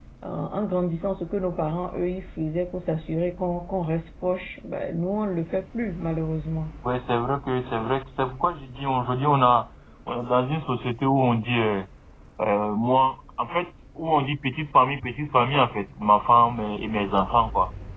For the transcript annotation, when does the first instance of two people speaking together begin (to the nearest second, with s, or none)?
none